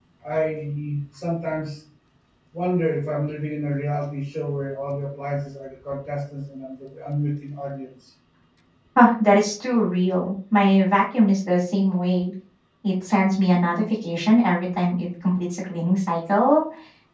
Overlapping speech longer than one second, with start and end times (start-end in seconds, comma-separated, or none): none